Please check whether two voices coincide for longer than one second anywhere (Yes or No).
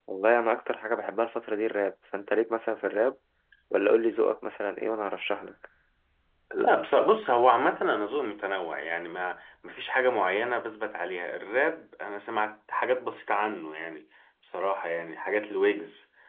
No